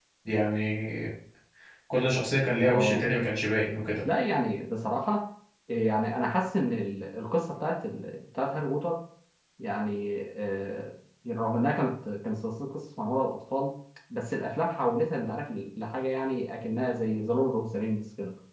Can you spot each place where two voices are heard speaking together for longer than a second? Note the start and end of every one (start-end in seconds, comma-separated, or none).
none